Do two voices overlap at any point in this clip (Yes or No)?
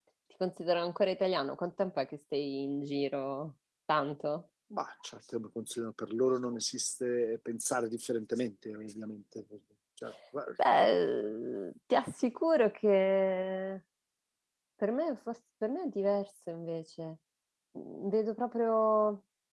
No